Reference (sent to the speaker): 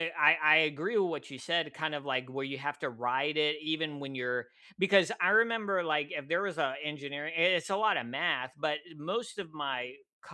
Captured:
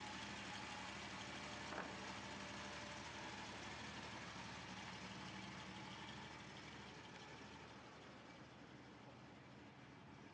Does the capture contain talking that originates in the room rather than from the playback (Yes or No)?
No